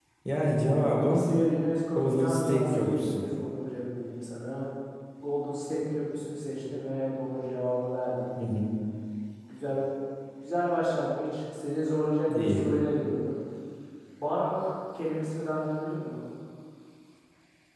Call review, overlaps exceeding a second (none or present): present